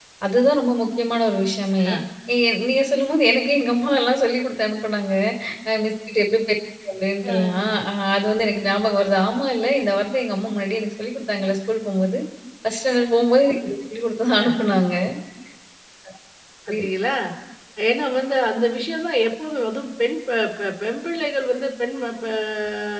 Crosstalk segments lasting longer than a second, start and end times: none

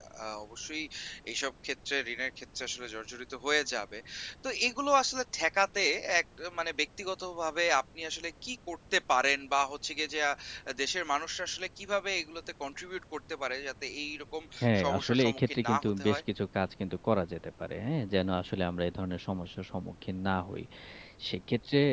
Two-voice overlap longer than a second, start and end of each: 14.8-16.2

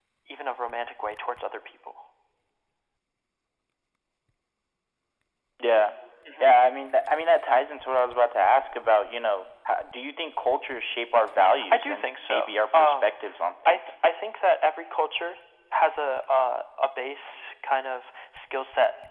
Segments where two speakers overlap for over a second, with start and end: 11.7-13.1

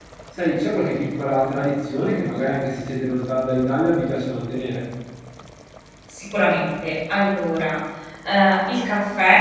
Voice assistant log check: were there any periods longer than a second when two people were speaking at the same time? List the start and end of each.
none

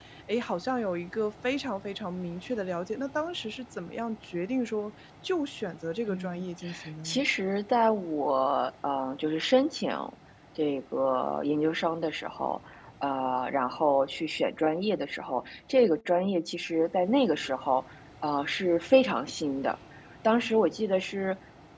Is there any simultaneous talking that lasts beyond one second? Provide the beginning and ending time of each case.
none

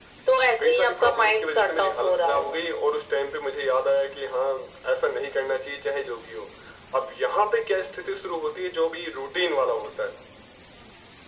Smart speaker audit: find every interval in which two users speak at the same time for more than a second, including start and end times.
0.6-2.6

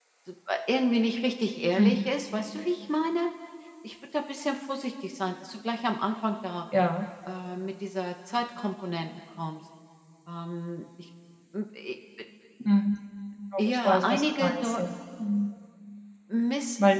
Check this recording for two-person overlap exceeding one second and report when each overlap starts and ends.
13.6-14.8

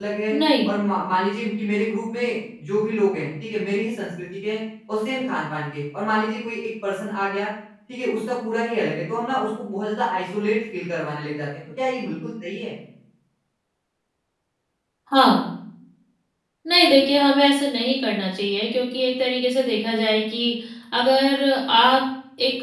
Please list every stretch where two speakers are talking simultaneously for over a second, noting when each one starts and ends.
none

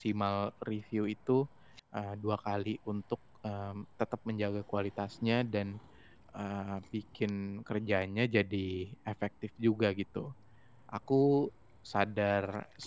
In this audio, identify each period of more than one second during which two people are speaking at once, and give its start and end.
none

